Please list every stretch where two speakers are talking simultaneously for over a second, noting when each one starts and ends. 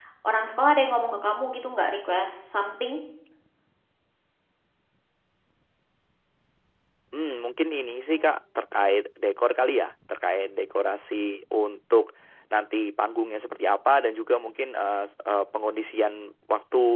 none

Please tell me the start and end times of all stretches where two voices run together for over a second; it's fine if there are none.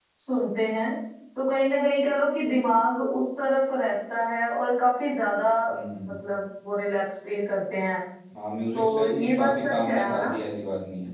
8.7-10.3

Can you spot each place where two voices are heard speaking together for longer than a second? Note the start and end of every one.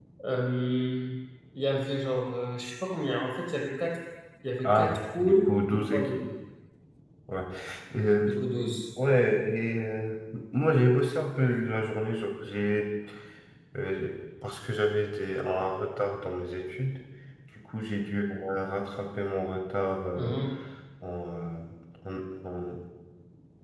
4.6-6.1

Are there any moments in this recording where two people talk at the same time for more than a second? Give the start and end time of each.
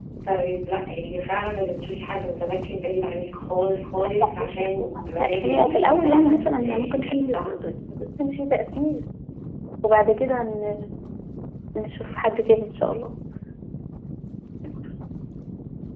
5.4-7.0

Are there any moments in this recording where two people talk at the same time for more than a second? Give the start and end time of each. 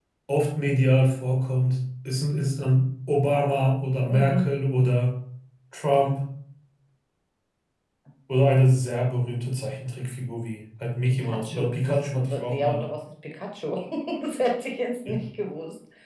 11.0-12.8

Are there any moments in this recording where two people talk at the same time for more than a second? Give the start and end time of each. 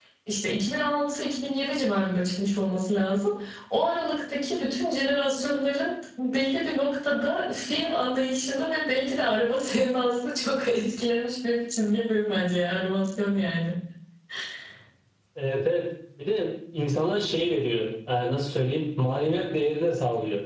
none

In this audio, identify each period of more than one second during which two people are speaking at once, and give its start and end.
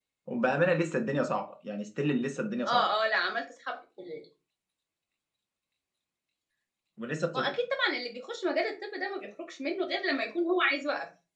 none

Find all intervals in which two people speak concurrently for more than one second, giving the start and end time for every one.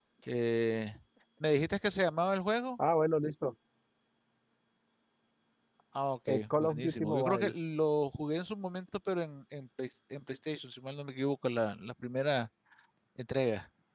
6.3-7.5

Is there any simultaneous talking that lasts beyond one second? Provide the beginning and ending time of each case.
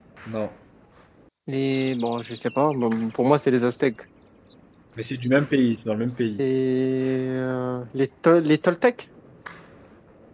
none

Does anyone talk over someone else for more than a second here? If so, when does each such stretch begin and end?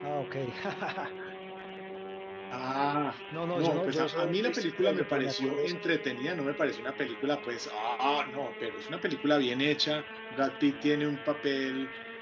3.5-6.0

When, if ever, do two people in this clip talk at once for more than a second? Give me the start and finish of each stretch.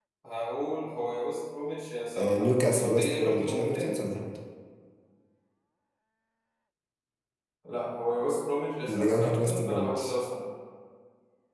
2.2-4.0, 8.9-10.2

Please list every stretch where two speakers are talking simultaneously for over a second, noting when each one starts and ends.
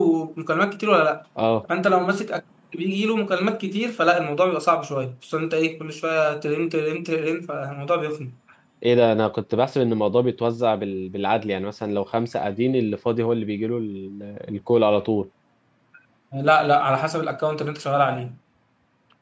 none

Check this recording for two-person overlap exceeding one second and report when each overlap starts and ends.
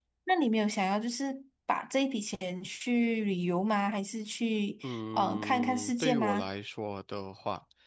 4.8-6.5

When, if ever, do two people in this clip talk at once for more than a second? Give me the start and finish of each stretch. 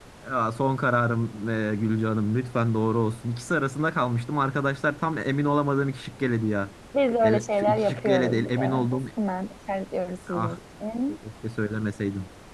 7.2-8.9

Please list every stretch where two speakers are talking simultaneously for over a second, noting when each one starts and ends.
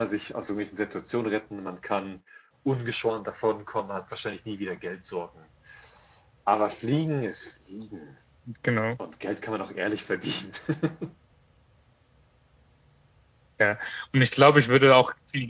none

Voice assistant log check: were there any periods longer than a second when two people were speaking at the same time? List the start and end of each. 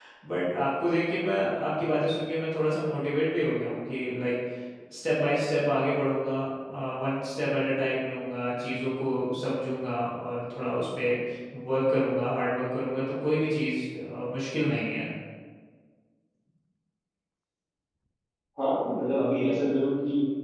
none

